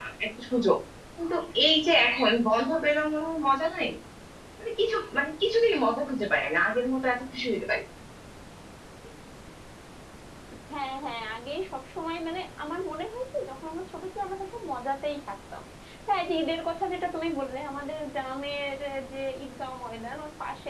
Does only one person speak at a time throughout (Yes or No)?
Yes